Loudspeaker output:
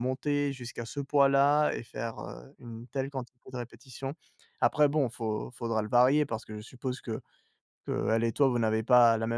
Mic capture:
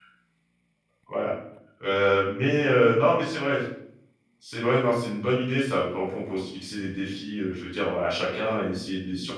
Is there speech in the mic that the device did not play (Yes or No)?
Yes